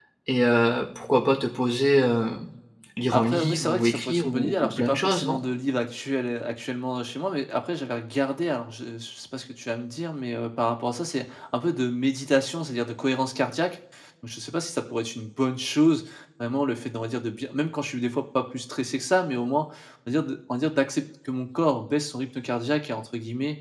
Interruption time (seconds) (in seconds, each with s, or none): 3.1 s